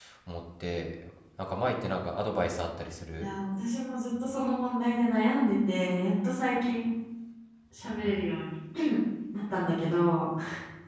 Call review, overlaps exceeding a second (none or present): none